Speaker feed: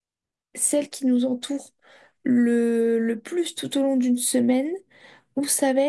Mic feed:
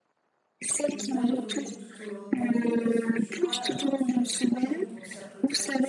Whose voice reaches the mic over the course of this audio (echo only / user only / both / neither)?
both